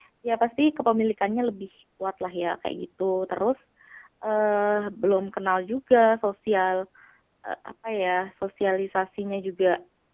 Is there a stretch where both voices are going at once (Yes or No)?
No